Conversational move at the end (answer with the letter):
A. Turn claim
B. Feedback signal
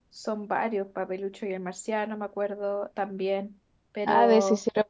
A